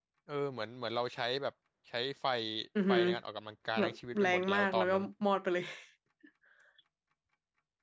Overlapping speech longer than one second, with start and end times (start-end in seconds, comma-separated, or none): 3.8-5.0